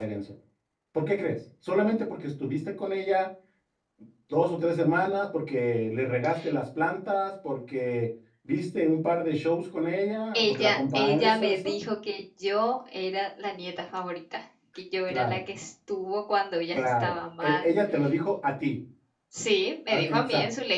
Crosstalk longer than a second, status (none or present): present